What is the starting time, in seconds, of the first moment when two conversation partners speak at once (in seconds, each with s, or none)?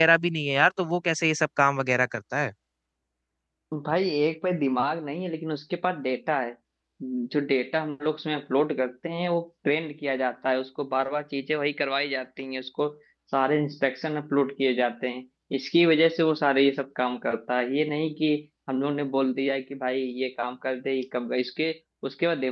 none